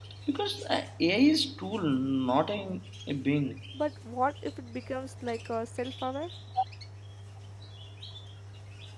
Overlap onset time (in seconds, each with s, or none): none